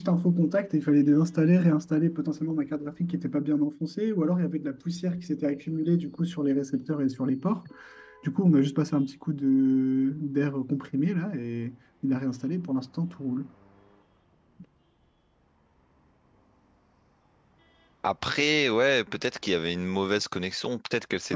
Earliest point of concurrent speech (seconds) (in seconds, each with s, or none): none